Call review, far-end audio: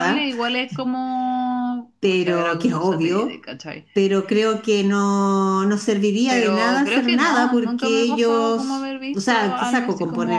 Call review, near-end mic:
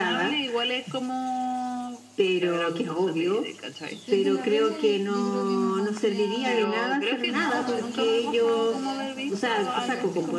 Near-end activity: present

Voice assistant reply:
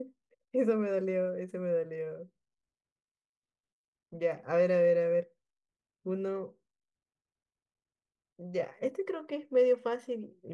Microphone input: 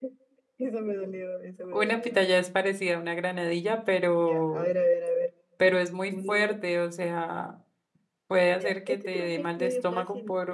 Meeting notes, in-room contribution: present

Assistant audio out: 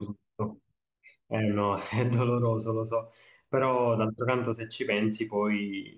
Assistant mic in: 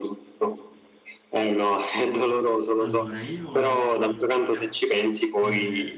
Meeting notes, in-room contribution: present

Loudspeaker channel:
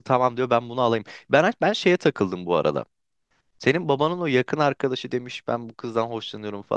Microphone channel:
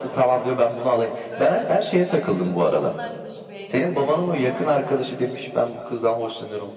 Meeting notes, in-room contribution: present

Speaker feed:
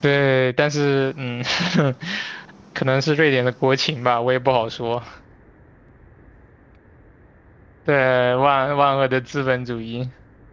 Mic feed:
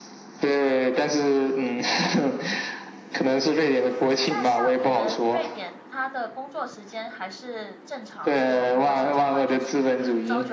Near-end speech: present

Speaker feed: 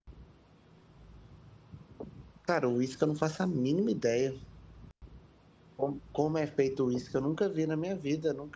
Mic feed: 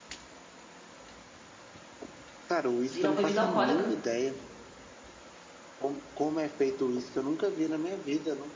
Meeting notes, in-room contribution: present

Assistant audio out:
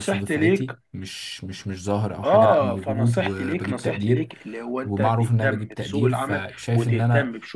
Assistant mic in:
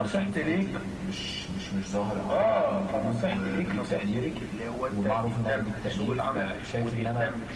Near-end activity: none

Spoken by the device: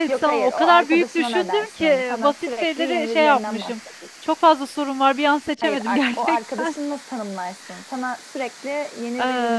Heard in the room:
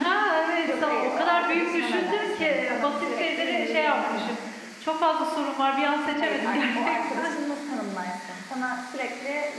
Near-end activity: none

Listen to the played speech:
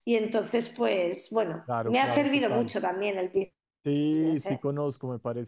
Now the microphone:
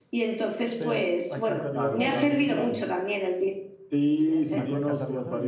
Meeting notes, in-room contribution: present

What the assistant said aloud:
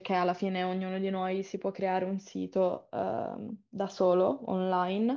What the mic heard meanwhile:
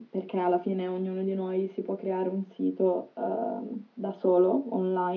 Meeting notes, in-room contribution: none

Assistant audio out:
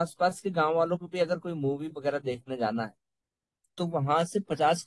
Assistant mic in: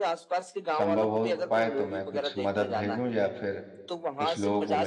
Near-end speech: present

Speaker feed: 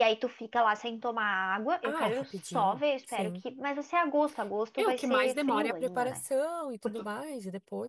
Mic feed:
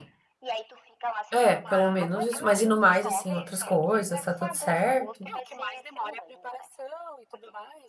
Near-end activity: present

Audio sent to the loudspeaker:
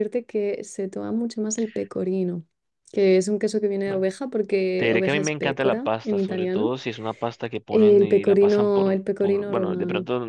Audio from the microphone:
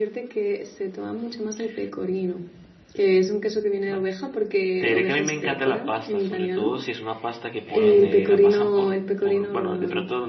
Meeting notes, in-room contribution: present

